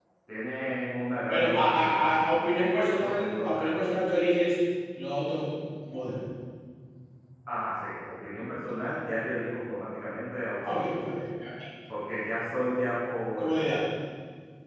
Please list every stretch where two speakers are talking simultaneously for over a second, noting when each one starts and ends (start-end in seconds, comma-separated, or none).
1.3-3.8